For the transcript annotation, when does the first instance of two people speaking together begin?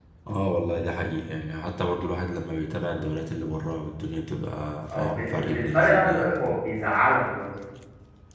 4.9 s

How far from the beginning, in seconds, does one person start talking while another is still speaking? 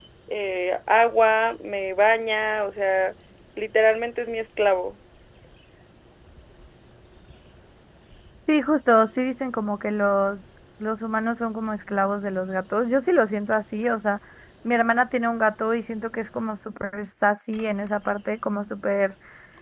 none

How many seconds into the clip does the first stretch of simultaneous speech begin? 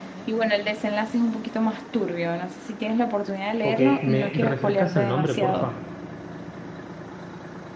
3.6 s

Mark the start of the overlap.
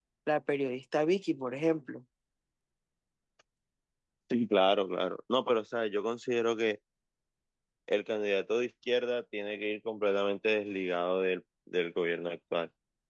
none

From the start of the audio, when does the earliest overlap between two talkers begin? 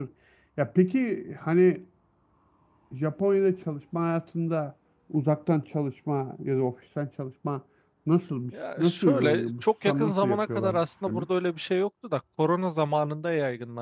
8.8 s

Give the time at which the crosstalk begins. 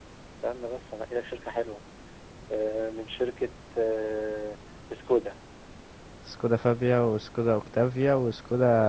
none

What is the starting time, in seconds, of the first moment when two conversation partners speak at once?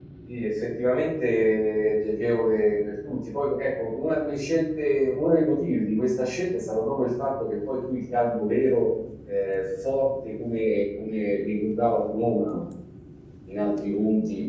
none

